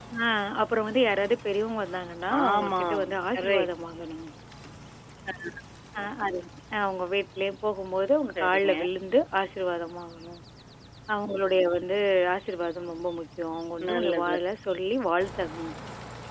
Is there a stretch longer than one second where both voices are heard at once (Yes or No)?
Yes